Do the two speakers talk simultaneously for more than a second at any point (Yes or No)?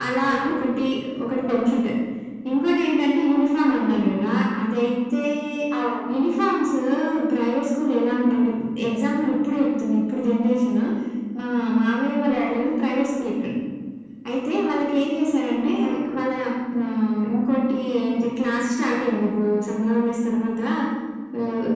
No